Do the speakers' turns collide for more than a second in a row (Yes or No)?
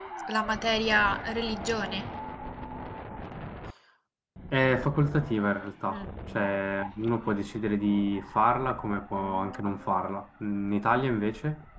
No